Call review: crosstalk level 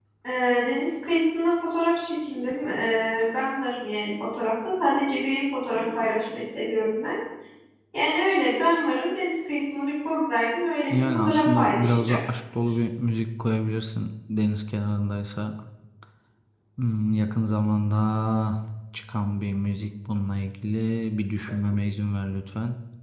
present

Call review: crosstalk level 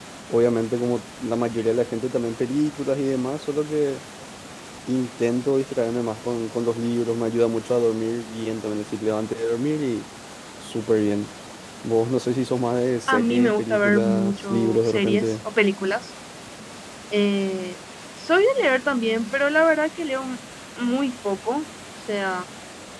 present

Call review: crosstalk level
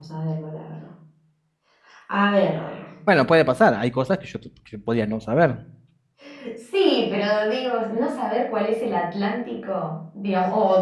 none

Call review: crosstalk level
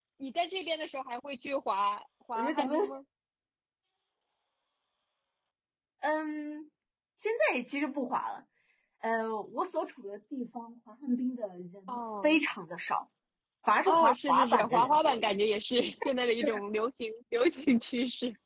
present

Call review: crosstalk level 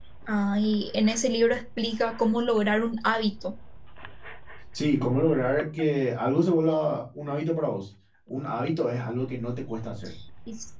none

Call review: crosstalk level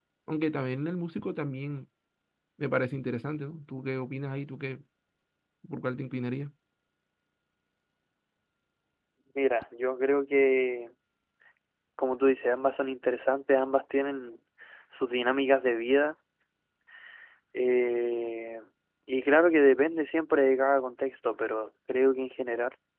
none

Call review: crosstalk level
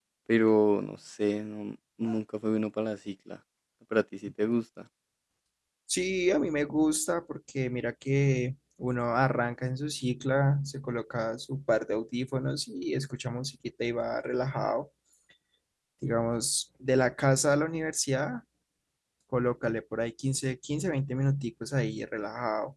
none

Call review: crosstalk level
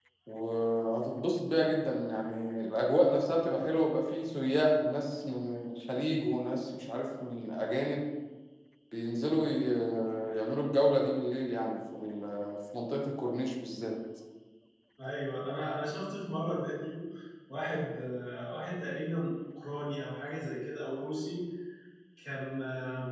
none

